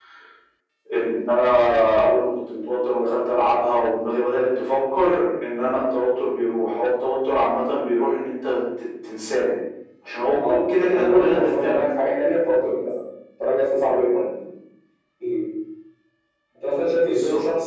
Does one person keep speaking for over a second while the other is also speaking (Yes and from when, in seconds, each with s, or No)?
Yes, from 10.3 s